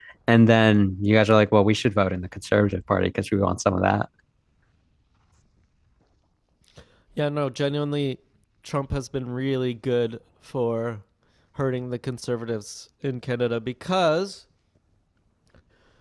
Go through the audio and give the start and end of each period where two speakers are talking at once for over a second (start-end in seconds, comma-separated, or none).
none